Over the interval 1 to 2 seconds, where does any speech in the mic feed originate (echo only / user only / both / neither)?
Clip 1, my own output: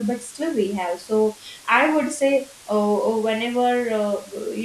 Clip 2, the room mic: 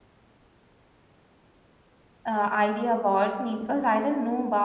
neither